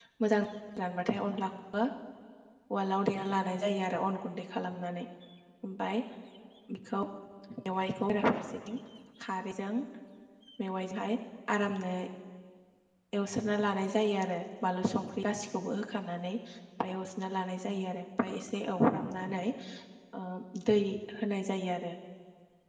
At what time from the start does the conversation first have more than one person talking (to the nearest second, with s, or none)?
none